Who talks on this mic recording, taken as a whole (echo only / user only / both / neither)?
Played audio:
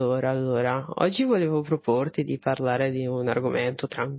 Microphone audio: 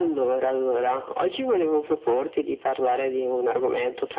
echo only